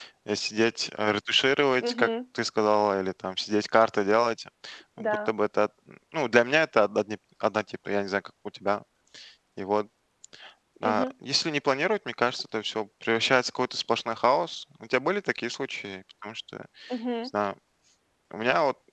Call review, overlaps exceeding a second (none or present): none